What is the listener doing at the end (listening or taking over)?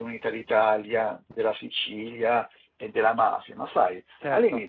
listening